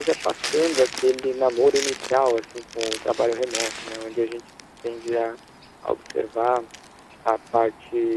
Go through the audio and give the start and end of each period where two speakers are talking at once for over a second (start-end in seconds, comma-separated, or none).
none